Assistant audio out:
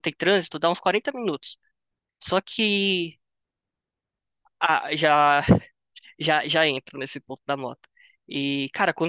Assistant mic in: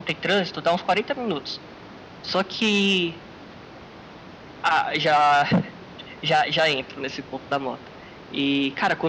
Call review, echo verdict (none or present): present